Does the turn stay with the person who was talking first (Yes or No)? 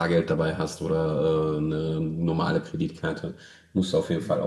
Yes